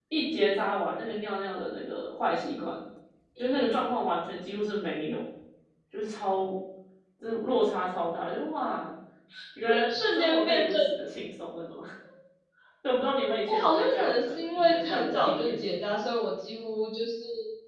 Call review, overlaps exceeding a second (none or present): present